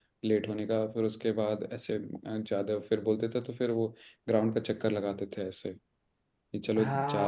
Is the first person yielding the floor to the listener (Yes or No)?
Yes